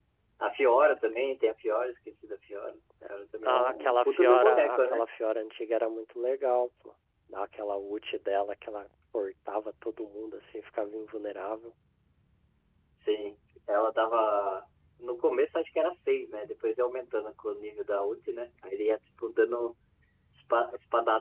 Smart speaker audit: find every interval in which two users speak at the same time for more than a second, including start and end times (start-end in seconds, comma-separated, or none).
3.4-5.1